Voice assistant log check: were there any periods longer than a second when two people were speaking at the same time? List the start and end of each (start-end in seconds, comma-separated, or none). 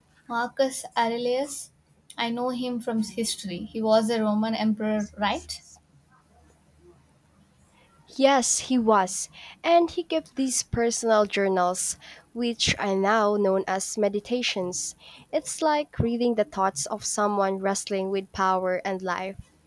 none